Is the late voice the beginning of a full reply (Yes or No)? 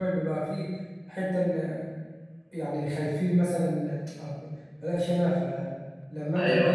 No